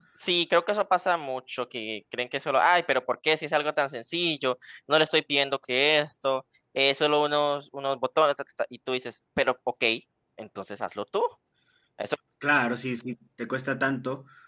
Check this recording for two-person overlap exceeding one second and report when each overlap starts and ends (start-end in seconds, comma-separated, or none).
none